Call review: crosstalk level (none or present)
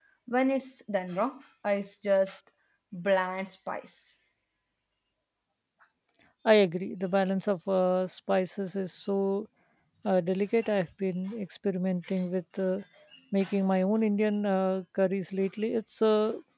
none